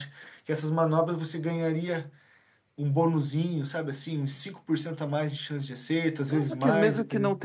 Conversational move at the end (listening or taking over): taking over